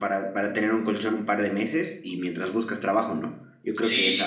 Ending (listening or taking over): listening